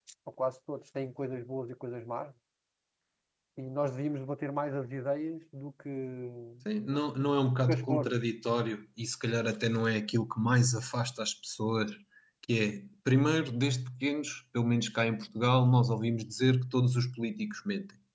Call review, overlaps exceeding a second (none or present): none